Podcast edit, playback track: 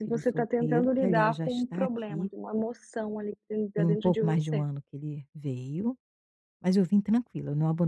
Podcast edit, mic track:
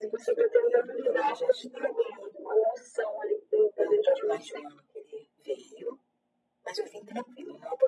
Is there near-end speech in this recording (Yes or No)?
No